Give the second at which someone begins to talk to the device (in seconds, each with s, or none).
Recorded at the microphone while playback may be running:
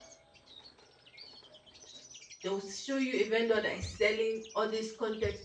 2.4 s